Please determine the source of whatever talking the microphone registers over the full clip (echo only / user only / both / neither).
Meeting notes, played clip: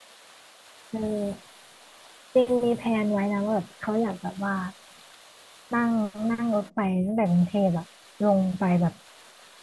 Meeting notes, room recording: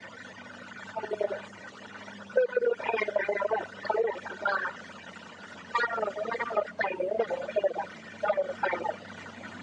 echo only